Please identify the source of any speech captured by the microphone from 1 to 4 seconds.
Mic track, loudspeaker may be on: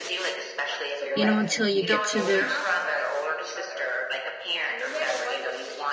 both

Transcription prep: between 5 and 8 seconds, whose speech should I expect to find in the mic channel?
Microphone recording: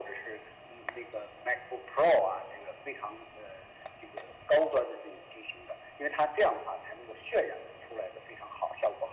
echo only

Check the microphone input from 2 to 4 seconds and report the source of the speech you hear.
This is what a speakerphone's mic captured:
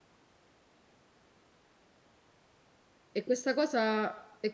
user only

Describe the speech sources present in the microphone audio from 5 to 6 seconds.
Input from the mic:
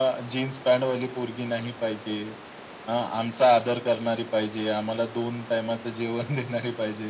echo only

